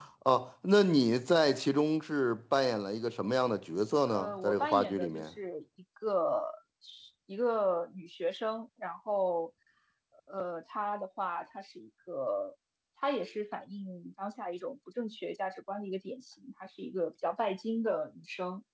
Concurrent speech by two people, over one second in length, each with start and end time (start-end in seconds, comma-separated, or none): 4.1-5.3